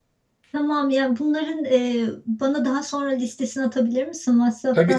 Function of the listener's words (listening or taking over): taking over